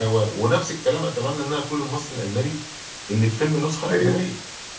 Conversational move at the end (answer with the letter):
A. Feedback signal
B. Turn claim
A